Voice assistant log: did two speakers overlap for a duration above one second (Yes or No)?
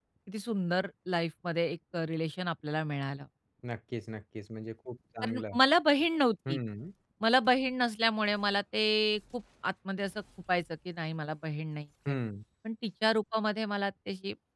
No